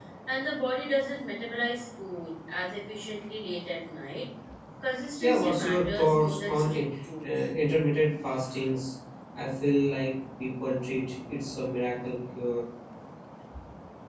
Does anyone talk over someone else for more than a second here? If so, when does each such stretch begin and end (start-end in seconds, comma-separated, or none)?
5.2-6.8